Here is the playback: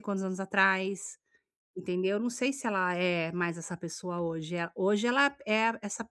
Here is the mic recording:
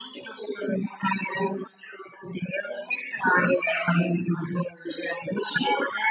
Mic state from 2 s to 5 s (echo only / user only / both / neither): echo only